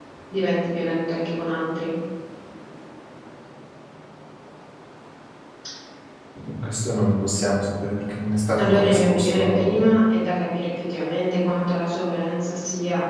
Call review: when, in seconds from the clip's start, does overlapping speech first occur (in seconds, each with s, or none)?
8.6 s